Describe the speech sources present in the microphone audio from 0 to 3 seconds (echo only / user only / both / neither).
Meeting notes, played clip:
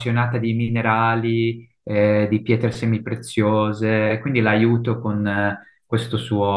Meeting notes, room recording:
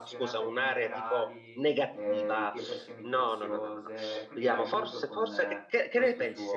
both